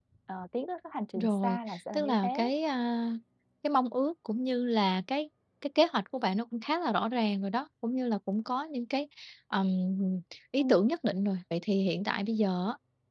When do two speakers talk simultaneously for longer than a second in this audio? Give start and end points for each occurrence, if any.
1.1-2.5

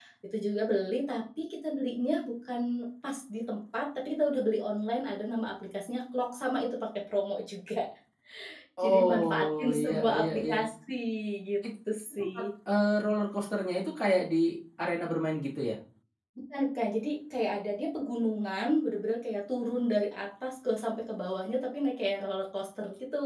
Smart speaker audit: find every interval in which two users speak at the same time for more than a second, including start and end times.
8.8-10.6

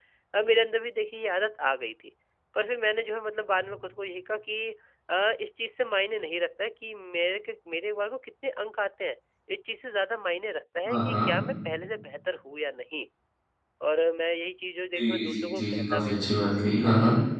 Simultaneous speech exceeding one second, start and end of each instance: 15.0-16.4

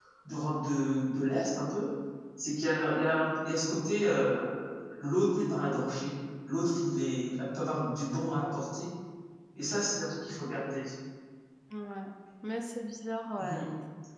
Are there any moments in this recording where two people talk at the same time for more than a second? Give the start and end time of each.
none

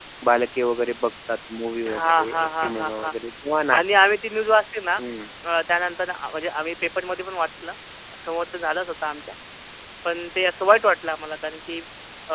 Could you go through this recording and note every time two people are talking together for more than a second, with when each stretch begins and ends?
1.9-3.1

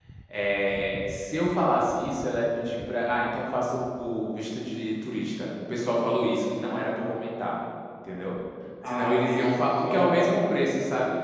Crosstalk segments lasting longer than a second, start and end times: 8.8-10.4

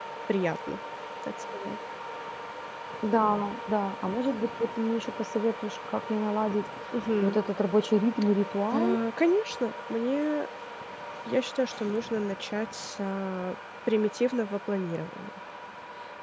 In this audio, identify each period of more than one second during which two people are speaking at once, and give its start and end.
none

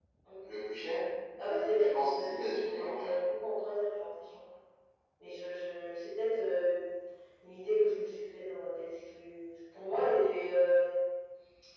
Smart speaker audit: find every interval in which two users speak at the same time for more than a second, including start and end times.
2.0-3.2

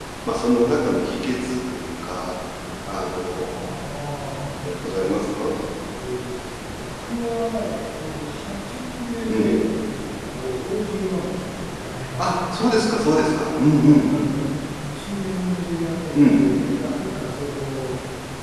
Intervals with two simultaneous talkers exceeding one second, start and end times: none

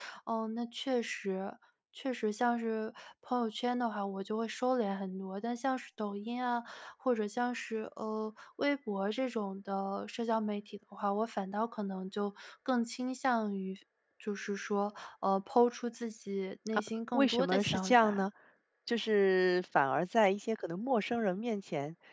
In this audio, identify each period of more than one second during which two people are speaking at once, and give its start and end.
16.7-18.2

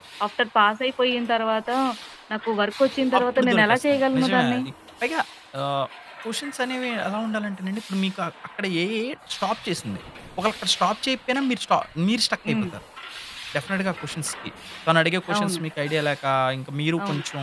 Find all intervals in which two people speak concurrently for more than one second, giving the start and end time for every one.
3.2-4.6

